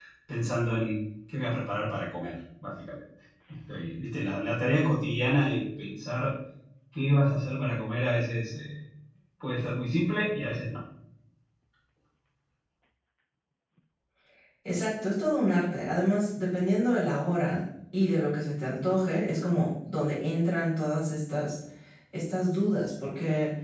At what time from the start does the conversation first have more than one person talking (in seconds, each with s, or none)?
none